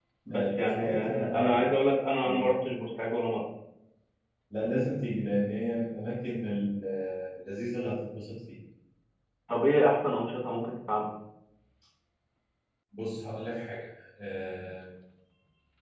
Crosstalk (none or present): present